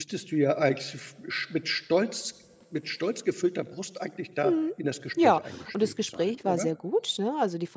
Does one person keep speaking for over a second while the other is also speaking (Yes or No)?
Yes